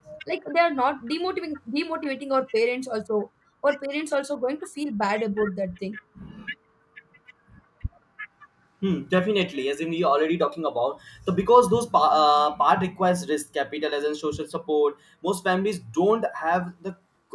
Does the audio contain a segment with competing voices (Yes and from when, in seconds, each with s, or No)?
No